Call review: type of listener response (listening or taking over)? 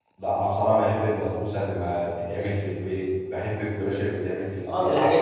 taking over